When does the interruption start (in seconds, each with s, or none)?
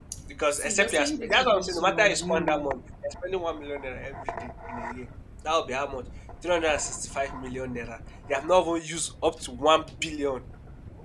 0.5 s